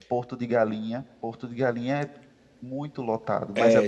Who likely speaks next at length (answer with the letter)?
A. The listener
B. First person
A